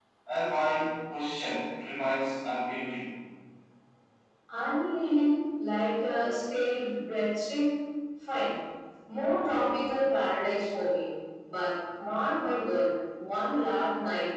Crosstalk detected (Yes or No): No